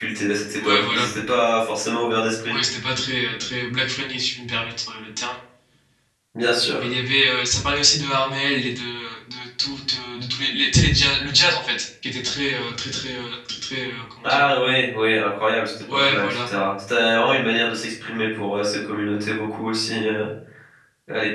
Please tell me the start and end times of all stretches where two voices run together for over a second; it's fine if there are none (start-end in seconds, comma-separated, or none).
none